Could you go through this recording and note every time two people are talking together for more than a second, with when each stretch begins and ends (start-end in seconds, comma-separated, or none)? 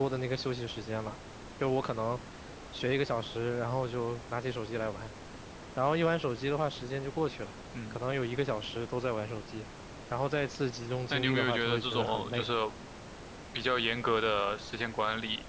11.1-12.4